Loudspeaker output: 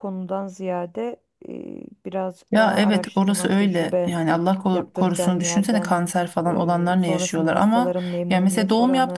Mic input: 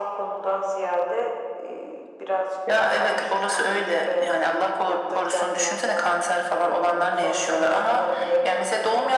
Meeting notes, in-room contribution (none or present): none